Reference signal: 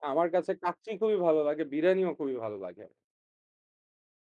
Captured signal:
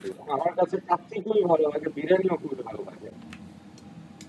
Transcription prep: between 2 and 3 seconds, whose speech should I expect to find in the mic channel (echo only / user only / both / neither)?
echo only